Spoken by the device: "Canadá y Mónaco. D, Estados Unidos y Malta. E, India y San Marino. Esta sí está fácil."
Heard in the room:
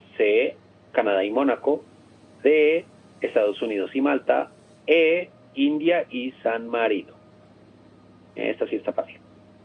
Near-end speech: none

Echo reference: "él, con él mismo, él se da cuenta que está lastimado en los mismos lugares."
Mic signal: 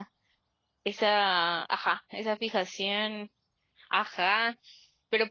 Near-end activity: present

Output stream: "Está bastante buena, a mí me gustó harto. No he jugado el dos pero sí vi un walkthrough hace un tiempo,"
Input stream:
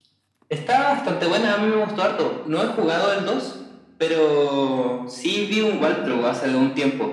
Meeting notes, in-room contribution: none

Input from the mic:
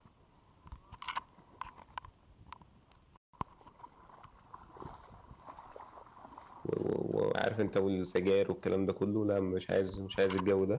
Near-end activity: present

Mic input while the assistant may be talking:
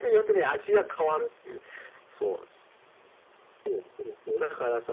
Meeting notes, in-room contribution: none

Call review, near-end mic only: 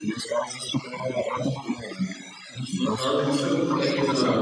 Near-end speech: present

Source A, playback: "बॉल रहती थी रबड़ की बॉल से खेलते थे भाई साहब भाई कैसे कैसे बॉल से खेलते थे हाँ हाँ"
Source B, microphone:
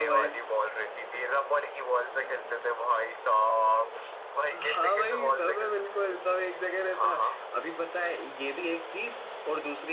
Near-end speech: present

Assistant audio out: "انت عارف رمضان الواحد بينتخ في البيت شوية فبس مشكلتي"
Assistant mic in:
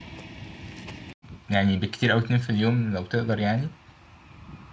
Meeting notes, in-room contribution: present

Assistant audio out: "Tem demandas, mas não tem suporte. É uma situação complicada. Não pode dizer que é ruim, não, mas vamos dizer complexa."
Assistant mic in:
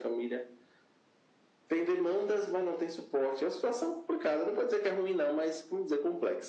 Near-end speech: none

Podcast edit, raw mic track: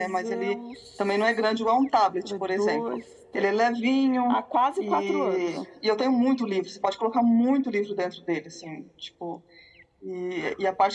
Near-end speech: none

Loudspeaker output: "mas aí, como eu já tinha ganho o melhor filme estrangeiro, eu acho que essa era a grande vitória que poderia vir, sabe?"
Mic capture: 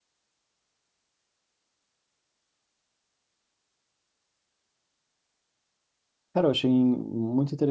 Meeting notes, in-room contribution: present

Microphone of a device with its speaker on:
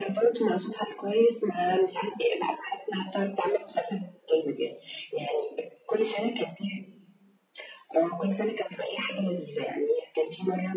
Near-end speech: none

